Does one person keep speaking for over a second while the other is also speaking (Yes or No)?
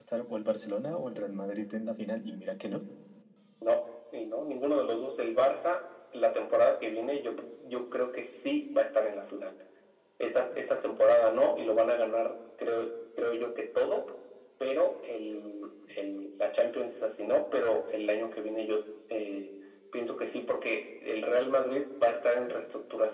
No